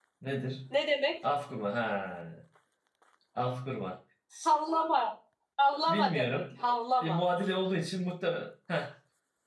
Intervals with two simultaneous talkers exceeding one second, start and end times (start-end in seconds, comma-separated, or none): 5.9-7.2